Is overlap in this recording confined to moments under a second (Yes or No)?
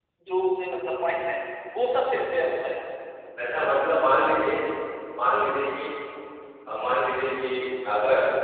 Yes